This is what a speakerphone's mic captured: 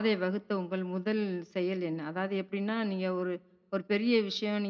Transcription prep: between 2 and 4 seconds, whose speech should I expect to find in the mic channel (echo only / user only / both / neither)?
echo only